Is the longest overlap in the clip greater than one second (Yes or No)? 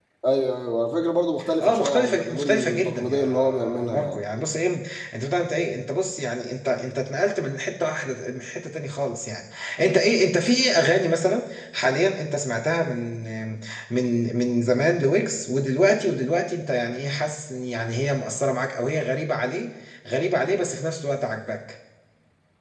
Yes